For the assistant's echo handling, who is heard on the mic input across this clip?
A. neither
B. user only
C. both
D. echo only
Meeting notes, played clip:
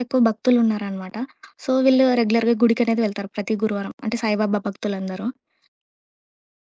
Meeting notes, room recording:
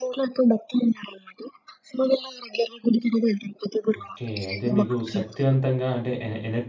C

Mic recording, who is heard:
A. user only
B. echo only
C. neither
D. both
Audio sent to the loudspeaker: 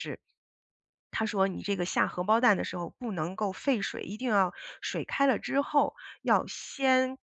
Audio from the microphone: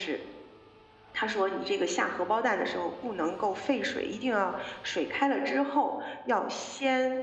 B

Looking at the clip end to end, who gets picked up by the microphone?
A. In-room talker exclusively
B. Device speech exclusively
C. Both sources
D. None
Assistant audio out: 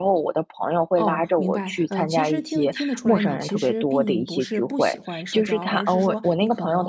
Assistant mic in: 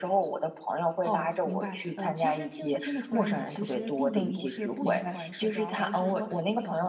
C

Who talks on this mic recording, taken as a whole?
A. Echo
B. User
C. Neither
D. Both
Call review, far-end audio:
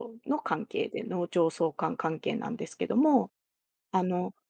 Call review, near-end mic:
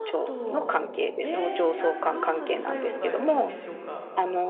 D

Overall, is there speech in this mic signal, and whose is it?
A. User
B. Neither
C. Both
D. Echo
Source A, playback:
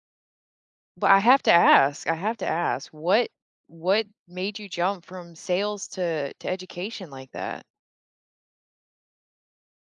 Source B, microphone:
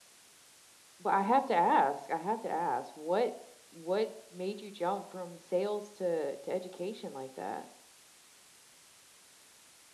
D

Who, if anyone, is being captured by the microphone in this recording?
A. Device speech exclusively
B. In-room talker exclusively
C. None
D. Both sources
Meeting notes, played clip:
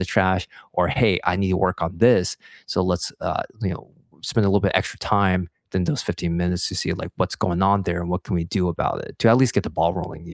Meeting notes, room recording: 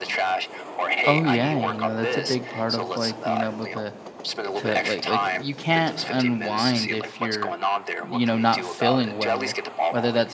D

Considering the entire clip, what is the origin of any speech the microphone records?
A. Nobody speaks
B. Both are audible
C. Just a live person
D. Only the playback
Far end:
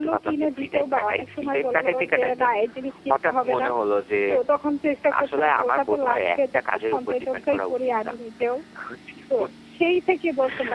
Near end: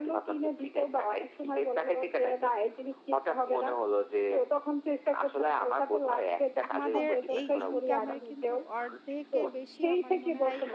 B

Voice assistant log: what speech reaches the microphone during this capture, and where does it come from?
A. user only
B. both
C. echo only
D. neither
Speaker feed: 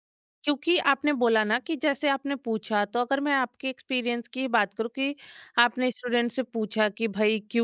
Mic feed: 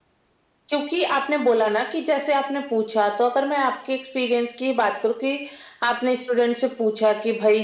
C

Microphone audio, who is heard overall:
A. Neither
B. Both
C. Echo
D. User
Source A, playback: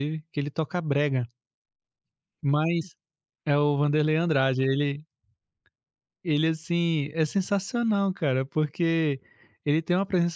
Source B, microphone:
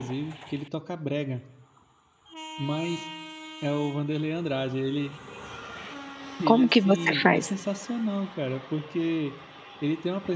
B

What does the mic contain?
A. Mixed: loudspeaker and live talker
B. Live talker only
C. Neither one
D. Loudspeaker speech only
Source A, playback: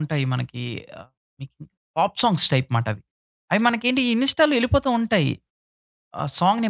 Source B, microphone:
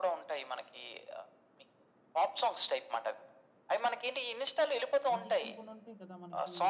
A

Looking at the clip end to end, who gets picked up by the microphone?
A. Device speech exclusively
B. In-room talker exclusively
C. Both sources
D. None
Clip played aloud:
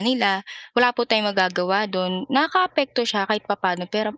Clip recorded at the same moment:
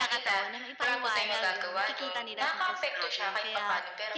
C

